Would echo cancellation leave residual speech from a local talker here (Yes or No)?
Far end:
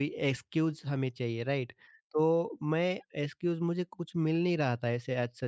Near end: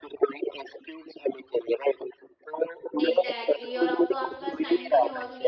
Yes